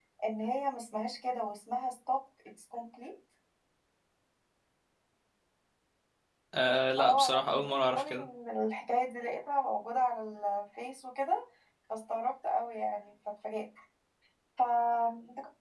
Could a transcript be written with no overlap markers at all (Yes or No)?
No